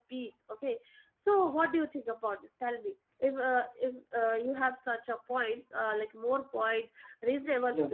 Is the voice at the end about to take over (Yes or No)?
No